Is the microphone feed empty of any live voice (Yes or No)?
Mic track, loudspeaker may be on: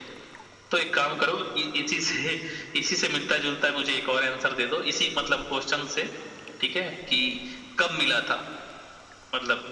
Yes